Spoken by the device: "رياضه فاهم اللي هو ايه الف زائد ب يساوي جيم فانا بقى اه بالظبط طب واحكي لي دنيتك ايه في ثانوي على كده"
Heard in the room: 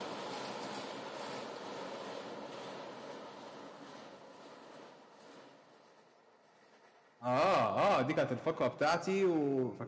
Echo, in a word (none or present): none